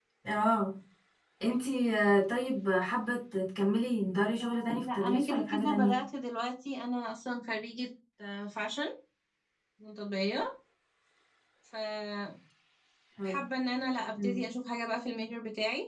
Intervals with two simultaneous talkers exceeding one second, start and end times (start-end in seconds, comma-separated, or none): 4.4-6.0